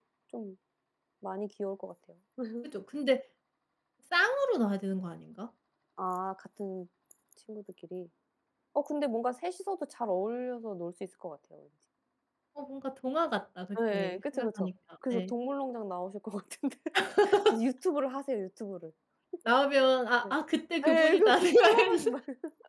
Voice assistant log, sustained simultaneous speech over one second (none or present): present